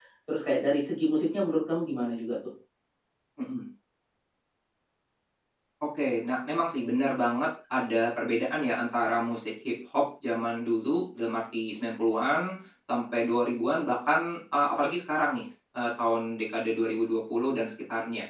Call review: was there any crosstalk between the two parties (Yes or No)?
No